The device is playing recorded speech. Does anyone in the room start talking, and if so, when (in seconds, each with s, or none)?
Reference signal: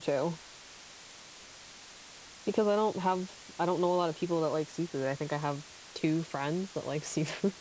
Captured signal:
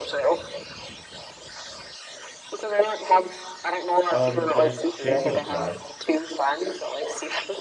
4.1 s